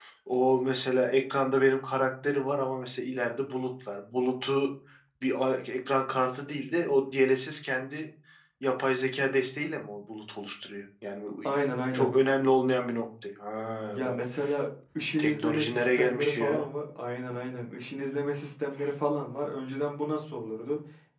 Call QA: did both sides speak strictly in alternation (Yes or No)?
No